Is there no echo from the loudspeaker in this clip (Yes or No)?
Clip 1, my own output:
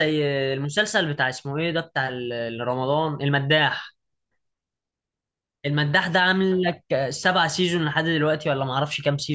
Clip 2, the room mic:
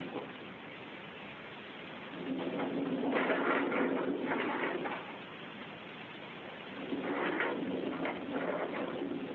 Yes